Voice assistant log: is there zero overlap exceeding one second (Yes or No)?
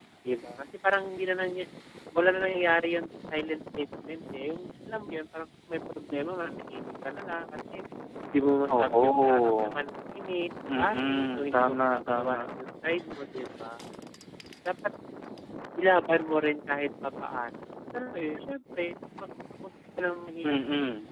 No